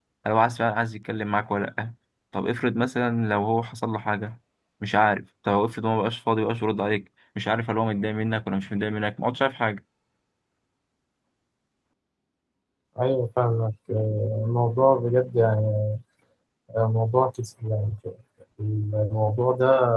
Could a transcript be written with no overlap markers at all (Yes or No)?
Yes